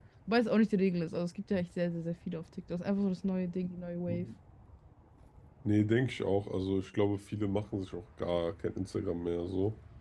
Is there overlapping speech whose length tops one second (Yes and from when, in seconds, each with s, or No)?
No